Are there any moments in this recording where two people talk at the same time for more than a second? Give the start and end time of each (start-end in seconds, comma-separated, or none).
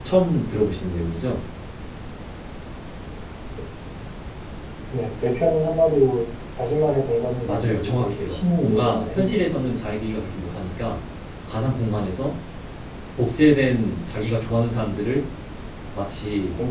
7.5-9.4